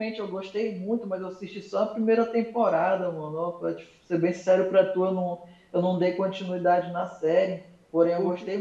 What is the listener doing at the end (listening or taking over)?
listening